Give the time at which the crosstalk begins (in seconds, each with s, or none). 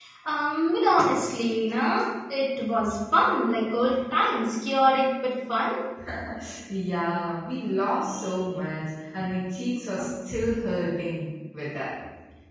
none